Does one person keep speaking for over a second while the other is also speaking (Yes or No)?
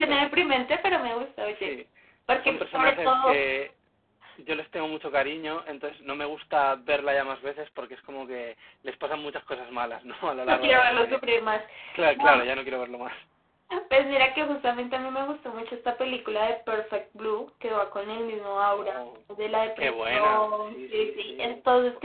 Yes